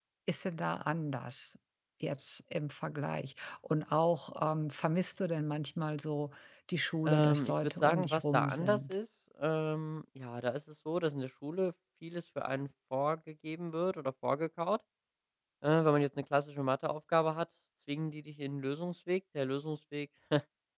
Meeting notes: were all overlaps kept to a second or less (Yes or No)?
No